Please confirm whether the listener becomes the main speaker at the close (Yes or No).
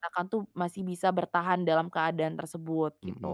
Yes